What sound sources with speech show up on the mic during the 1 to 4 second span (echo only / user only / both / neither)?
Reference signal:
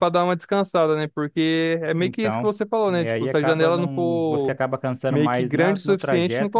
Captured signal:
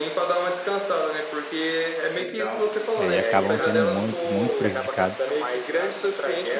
both